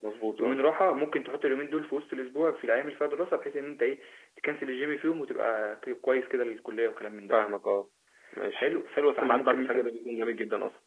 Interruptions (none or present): present